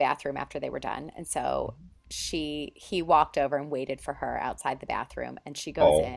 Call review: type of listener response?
listening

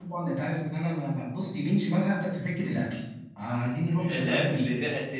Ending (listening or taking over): taking over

